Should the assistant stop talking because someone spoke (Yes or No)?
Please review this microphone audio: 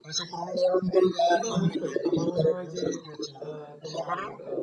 Yes